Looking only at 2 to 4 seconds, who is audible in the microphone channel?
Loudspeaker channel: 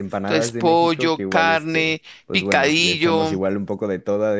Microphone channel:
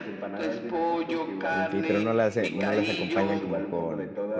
both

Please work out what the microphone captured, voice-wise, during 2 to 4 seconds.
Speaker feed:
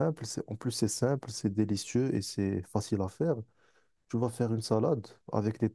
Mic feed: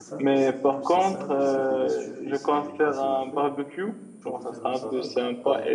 both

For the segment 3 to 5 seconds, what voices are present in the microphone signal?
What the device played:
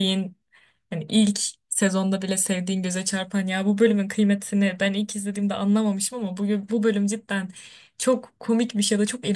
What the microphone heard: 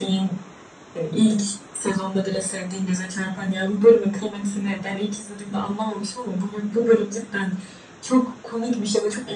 echo only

